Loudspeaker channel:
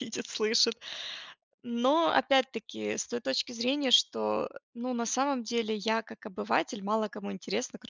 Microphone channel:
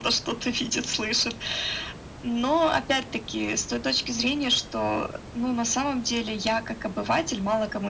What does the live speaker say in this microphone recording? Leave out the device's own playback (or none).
none